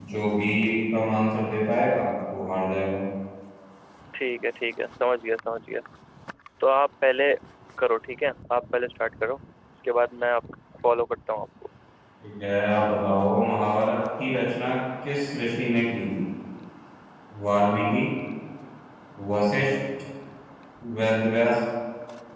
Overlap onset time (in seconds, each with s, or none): none